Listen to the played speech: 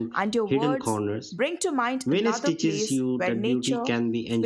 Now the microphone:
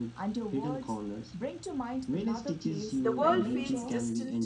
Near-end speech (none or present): present